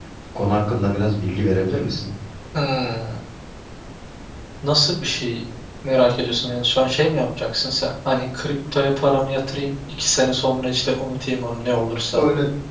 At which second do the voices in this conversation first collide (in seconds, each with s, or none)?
none